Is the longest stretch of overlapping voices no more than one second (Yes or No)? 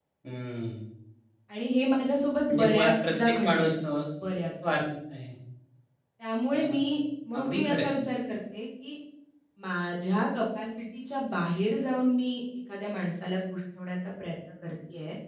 No